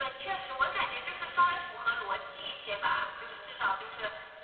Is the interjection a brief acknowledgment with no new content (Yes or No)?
Yes